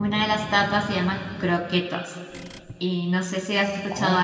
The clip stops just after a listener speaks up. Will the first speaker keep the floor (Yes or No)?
No